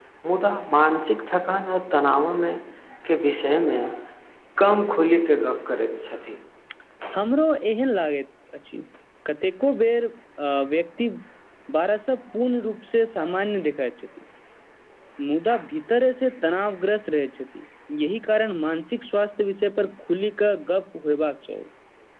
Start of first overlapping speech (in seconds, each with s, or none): none